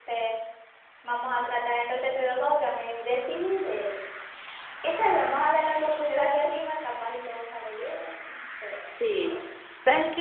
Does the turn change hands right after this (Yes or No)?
Yes